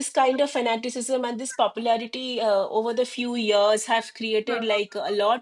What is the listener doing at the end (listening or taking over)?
listening